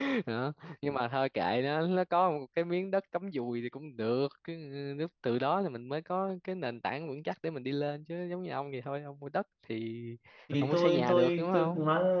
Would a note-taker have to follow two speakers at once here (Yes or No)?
Yes